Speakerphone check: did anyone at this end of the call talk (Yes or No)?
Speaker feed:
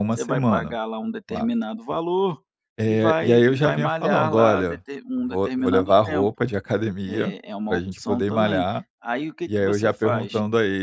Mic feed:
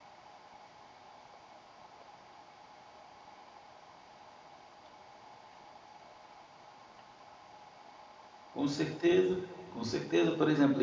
Yes